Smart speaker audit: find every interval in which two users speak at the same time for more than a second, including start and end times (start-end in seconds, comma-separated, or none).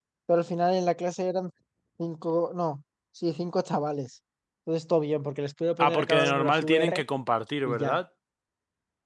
5.8-7.0